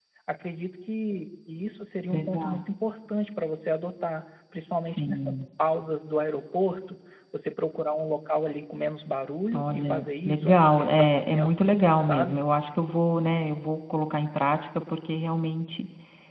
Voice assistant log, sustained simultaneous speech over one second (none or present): present